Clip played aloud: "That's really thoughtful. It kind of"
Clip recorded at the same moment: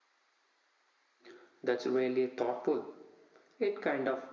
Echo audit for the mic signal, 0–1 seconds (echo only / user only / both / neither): neither